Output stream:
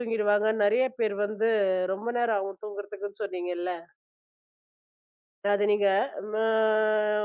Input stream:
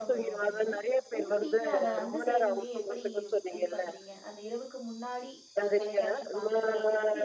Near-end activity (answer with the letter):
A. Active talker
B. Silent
A